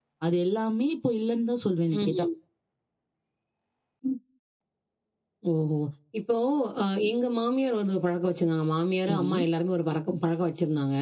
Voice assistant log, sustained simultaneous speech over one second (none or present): none